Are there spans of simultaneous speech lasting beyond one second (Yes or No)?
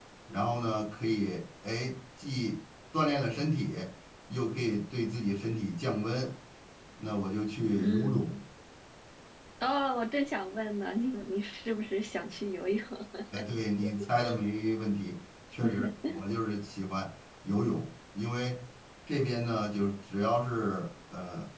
No